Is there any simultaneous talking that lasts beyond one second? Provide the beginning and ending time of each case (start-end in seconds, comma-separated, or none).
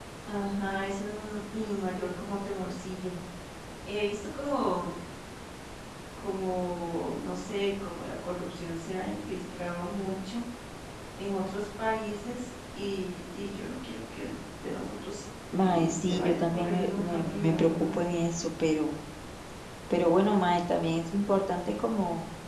15.6-18.0